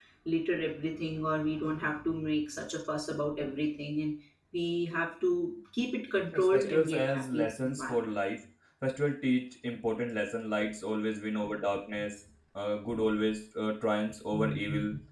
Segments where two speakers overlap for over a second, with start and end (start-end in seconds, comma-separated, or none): 6.3-8.1